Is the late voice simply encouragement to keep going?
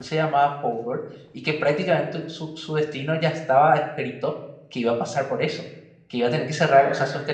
Yes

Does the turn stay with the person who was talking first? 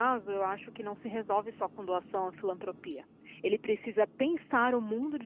Yes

